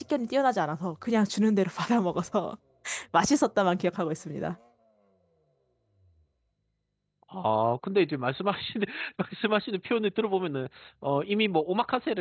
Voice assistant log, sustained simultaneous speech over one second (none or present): none